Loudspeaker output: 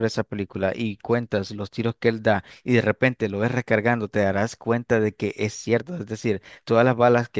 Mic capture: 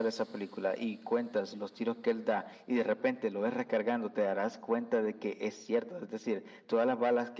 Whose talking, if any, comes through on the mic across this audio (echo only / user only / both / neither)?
echo only